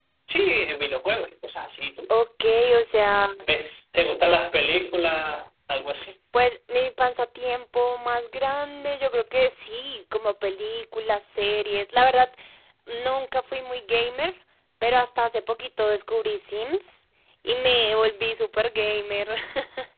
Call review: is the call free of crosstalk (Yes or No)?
Yes